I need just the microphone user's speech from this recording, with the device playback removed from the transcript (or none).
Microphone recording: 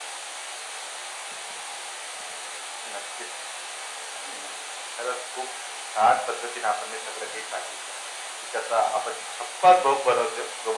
none